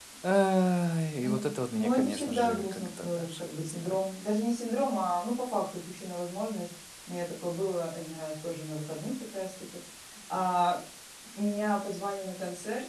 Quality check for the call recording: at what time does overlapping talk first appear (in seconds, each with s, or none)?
1.2 s